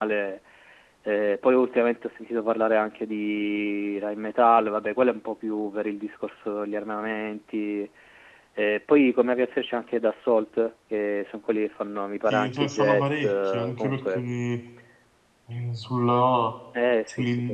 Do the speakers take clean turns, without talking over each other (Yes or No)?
No